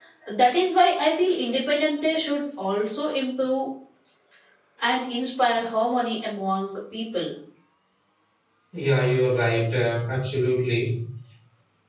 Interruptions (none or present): none